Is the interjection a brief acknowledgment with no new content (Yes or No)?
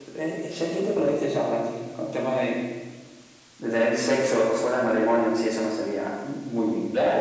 No